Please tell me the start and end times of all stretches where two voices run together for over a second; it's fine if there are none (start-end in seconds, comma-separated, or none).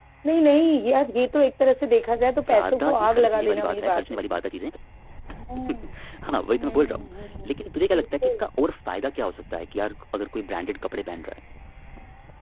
2.5-4.4